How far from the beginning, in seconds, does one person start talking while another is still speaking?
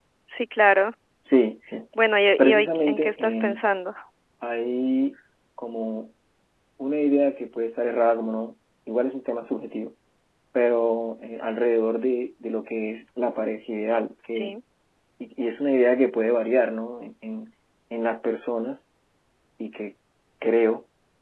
2.4 s

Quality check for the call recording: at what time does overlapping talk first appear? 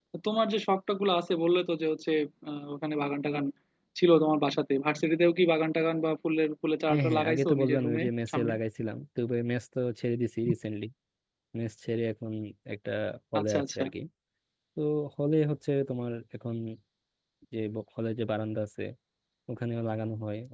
6.9 s

